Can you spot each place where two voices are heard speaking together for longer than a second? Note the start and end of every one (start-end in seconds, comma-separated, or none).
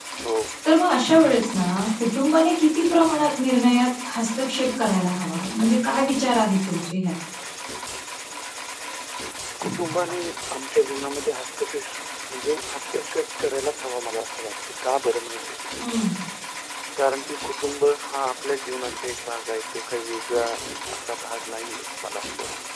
none